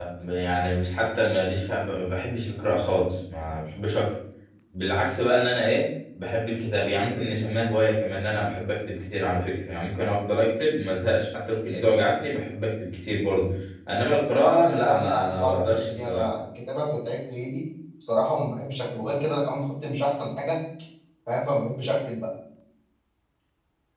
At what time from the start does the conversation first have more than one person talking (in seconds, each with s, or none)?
14.0 s